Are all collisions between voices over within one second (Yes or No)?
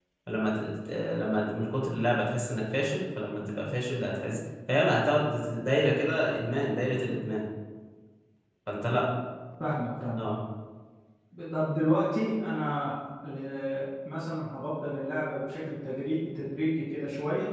Yes